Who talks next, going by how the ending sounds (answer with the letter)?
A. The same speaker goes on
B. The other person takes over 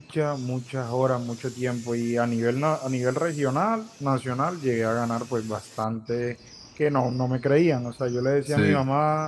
A